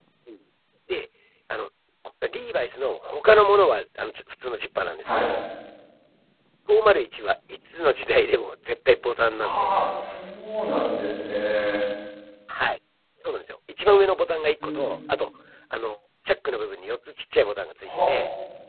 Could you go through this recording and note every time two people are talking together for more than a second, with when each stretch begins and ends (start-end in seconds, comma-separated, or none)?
none